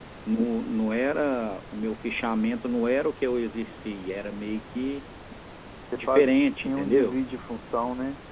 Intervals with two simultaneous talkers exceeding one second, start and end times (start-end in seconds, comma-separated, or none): 6.0-7.2